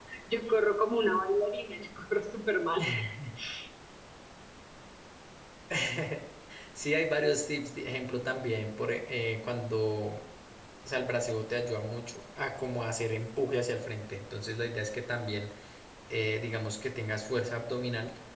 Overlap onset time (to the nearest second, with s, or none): none